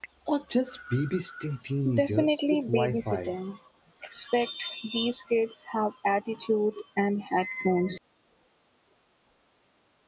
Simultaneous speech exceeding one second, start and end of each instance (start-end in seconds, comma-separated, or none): 1.9-3.3